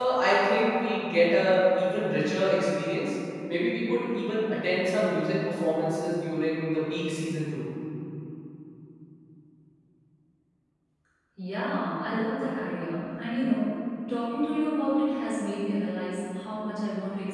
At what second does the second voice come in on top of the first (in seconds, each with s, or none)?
none